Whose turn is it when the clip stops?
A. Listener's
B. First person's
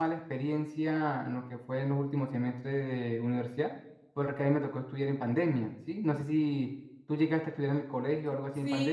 A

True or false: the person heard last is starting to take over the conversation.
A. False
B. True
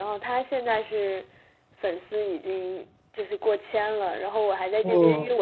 A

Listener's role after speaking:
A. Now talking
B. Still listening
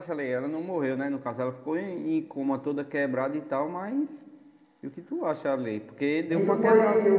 A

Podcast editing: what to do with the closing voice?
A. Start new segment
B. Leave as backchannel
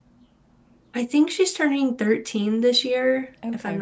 B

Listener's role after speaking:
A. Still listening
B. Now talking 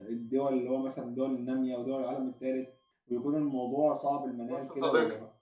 B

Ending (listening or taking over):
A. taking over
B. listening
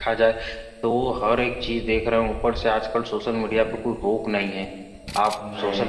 B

